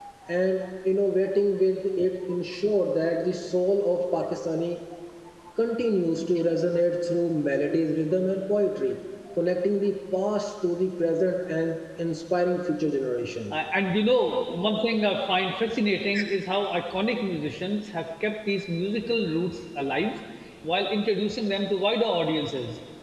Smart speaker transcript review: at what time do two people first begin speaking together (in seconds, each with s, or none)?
none